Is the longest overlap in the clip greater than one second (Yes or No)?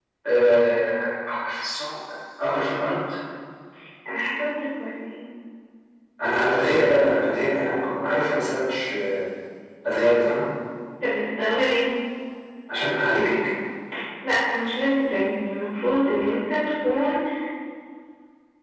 No